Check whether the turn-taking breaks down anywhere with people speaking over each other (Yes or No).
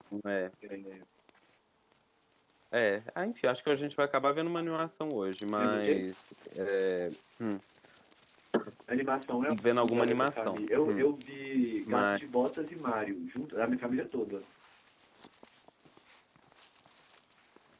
Yes